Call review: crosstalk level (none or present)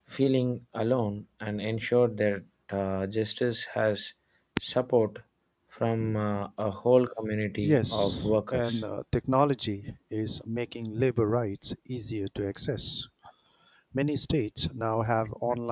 present